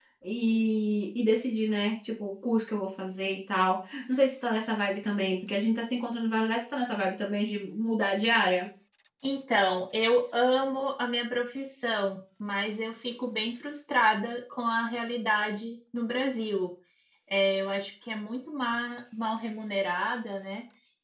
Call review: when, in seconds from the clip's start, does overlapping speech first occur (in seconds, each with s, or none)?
none